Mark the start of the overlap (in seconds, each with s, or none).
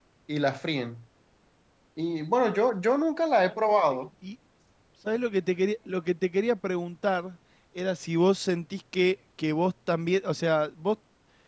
none